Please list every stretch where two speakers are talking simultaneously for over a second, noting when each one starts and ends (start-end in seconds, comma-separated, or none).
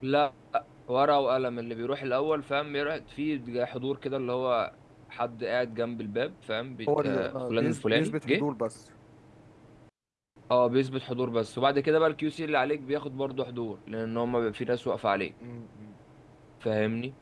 7.0-8.4